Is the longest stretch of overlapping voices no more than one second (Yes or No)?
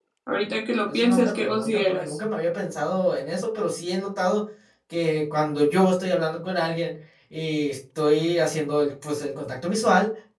No